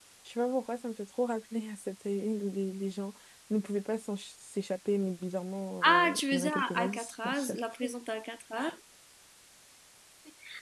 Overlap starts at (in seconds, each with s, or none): 5.8 s